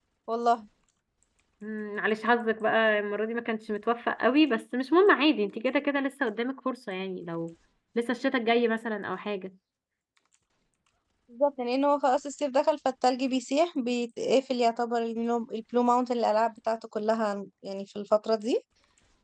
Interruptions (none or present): none